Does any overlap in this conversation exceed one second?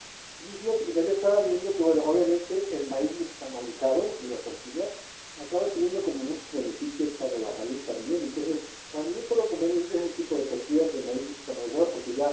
No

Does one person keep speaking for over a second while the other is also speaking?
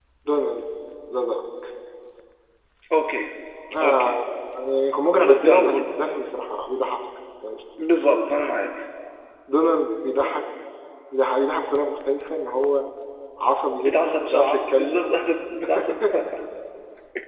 Yes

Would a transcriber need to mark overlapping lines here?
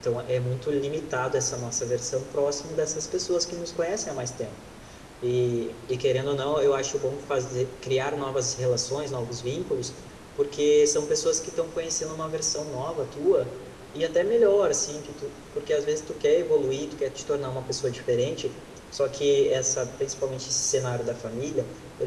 No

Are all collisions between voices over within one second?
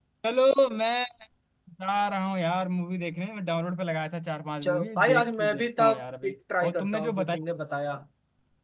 No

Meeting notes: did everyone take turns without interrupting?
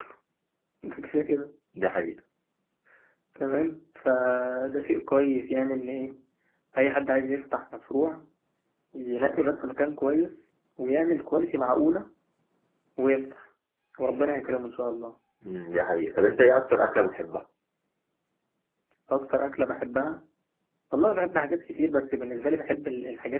Yes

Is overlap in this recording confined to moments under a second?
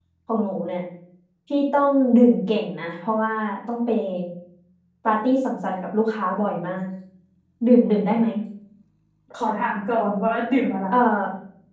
Yes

